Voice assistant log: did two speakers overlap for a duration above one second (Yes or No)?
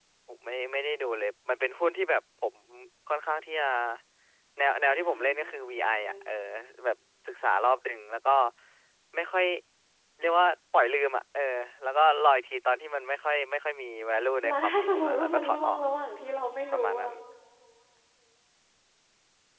Yes